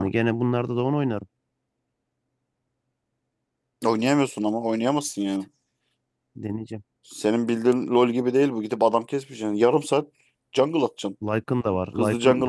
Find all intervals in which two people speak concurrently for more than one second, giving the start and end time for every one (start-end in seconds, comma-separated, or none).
none